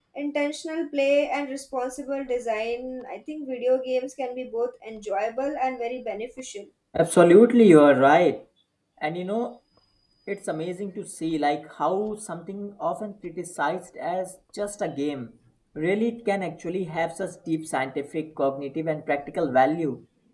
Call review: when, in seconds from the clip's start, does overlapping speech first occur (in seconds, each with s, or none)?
none